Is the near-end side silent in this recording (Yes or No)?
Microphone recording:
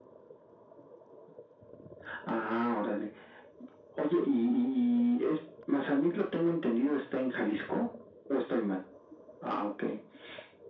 Yes